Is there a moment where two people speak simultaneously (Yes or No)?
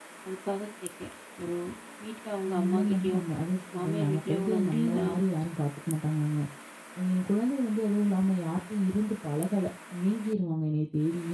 Yes